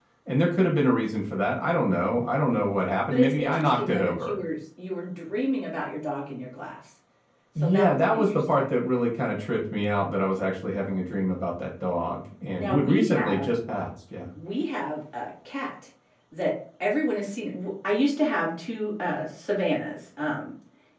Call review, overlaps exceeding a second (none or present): present